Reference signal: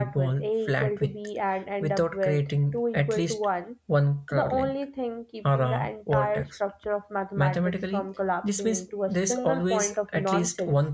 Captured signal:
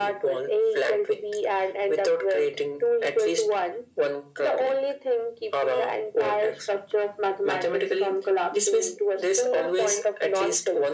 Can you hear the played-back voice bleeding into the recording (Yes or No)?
Yes